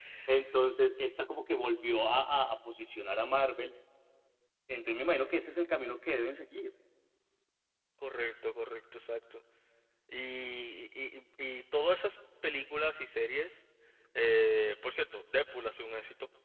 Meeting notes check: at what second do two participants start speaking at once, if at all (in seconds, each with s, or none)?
none